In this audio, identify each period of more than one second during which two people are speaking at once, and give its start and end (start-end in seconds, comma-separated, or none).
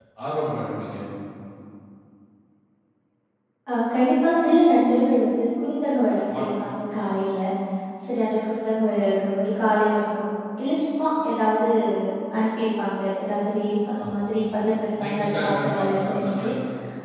15.0-16.5